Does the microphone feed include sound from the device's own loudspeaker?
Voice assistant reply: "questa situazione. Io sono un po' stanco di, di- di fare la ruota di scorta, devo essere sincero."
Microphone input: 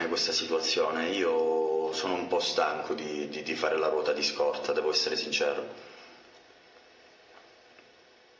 Yes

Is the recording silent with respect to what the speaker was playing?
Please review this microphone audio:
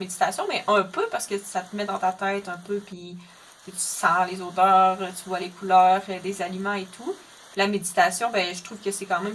Yes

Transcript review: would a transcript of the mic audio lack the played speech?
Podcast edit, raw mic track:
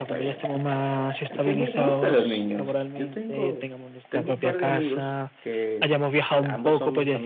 No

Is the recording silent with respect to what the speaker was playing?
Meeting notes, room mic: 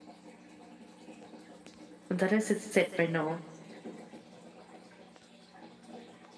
Yes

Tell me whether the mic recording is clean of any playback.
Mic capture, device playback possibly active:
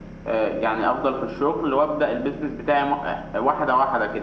No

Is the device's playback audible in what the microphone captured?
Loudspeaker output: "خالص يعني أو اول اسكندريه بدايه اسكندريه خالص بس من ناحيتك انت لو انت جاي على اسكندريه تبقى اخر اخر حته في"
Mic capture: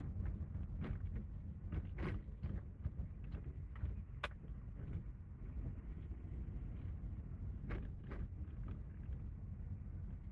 No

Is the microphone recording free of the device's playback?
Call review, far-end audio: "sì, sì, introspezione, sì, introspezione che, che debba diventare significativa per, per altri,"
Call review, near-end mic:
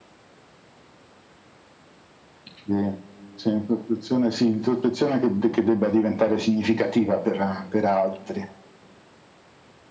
No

